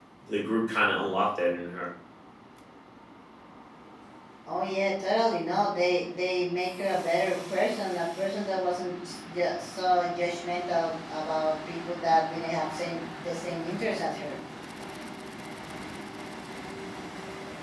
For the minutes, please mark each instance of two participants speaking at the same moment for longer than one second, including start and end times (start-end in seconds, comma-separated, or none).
none